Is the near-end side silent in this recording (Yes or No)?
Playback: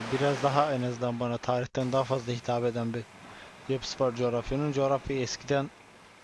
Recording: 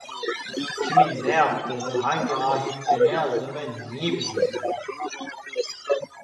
No